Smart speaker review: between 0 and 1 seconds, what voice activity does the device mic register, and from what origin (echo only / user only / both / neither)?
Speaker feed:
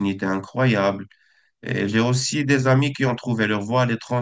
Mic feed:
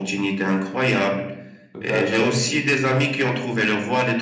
echo only